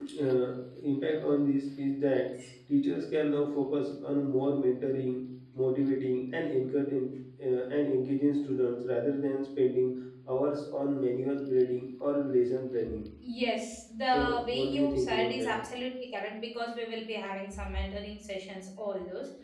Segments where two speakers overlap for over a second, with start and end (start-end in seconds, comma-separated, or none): 14.1-15.5